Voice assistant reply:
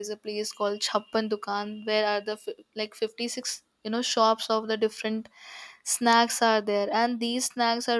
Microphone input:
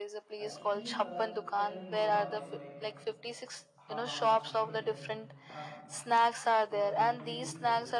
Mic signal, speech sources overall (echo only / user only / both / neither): both